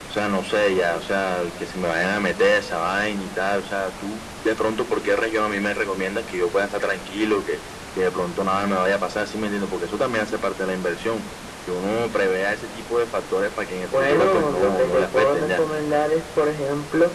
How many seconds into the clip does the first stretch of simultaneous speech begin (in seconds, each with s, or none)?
13.9 s